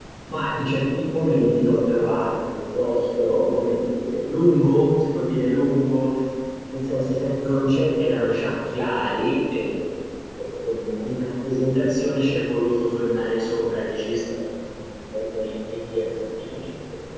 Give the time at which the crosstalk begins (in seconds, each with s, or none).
none